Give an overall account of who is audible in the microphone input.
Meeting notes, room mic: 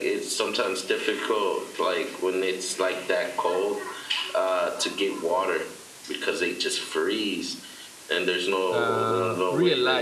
both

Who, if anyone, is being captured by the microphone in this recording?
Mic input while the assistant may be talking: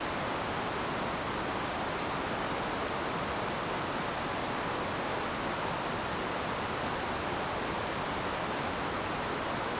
neither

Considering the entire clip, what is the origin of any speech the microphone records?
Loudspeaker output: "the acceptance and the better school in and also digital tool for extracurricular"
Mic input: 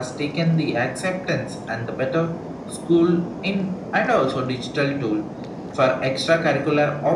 echo only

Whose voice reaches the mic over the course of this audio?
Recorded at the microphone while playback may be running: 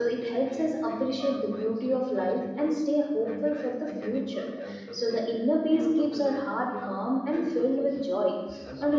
both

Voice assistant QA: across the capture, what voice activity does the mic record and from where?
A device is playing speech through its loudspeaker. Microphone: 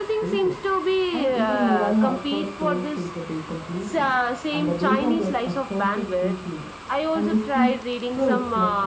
both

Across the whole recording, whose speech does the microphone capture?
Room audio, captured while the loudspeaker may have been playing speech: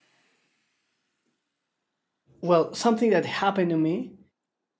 user only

